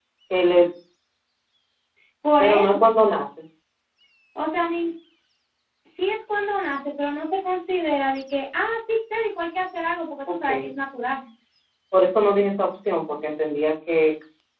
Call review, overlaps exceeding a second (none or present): none